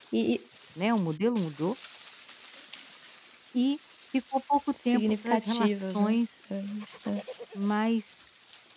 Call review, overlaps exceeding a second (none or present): present